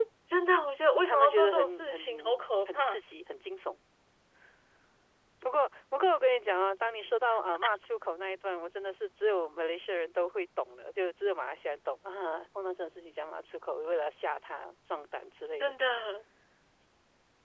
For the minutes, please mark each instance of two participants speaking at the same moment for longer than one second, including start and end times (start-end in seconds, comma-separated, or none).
1.1-3.0